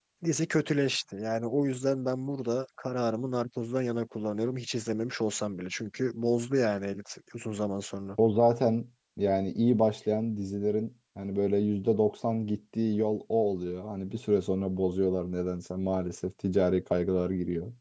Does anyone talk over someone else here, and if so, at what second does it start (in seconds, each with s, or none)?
none